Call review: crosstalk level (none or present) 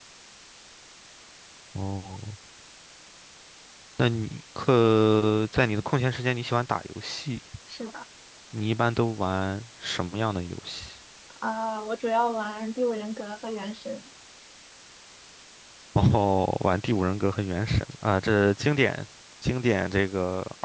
none